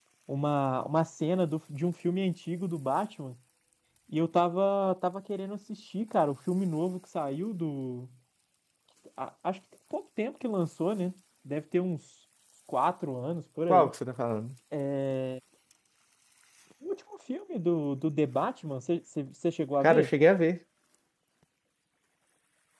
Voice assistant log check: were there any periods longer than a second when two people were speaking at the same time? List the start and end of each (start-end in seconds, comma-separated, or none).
none